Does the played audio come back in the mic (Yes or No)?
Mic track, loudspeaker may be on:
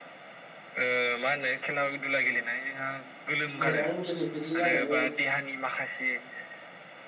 Yes